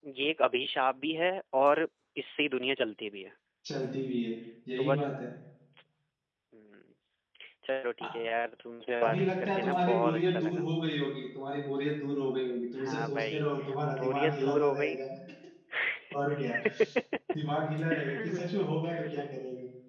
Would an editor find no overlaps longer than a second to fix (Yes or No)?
No